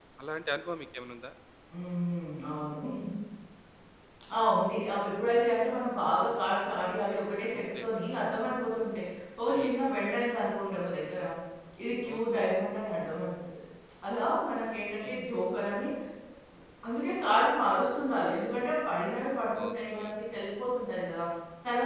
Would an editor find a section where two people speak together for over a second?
No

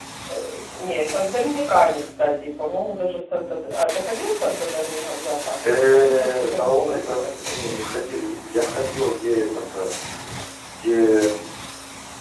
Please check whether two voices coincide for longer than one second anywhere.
Yes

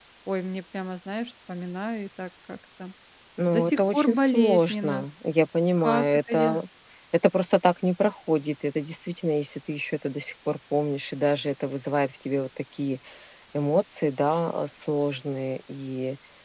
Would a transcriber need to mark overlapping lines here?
Yes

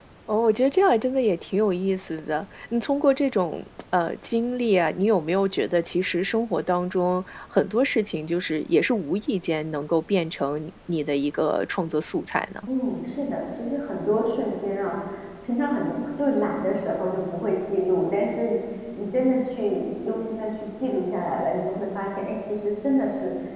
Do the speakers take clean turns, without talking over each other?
Yes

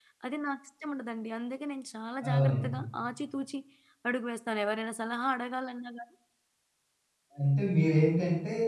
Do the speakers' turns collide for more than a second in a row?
No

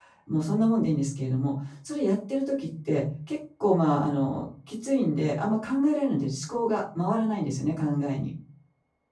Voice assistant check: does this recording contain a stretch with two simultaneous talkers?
No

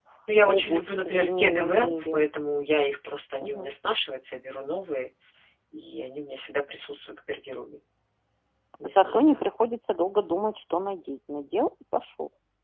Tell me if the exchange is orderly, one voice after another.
No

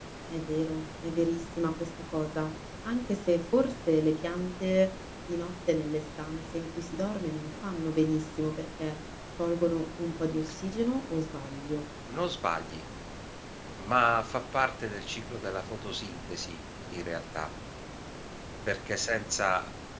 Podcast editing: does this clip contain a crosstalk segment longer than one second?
No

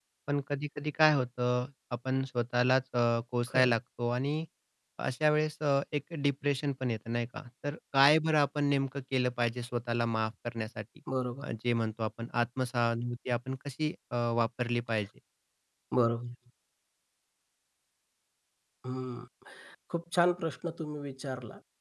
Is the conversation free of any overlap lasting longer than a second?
Yes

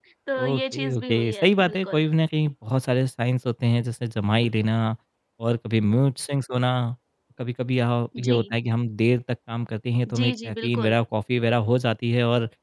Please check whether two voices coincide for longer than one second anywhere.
Yes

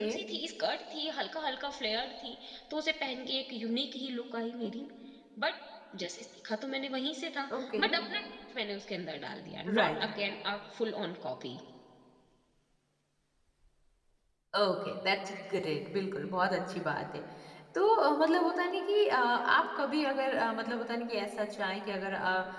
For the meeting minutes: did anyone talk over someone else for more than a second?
No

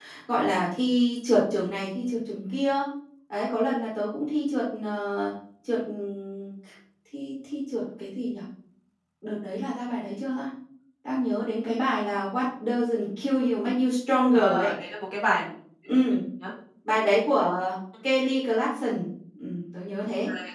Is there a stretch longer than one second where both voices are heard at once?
No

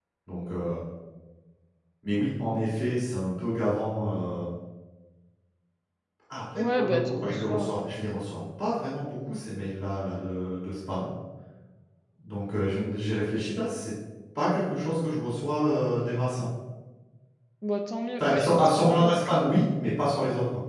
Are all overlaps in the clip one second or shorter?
No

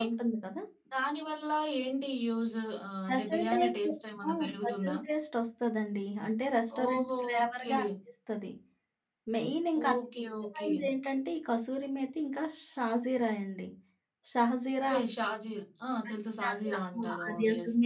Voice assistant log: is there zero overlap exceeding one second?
No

